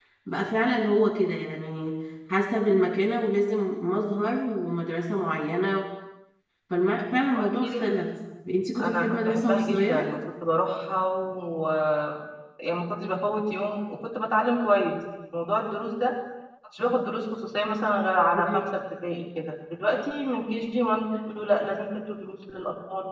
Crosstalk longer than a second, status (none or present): present